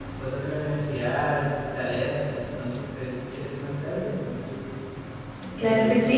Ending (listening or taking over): taking over